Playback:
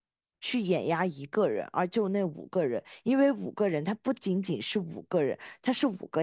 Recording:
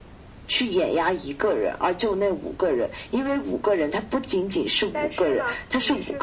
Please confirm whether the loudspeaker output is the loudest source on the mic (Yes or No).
Yes